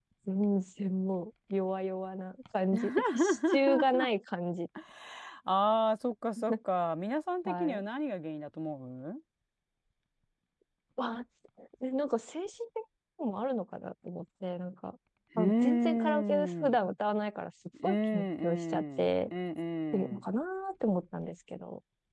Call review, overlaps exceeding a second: present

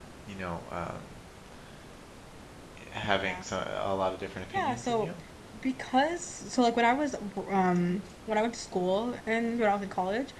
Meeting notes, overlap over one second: none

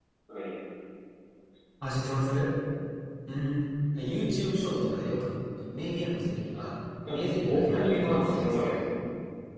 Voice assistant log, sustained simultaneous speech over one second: present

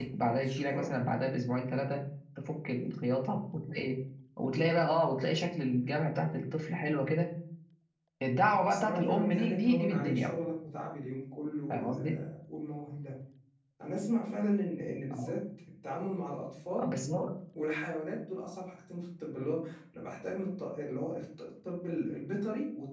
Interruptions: present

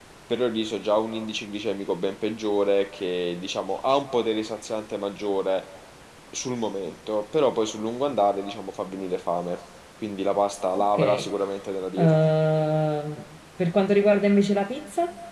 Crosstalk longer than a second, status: none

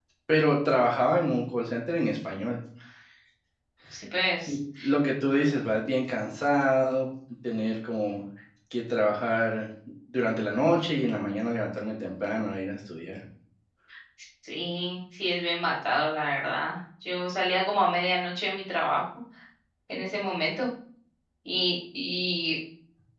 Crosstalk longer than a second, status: none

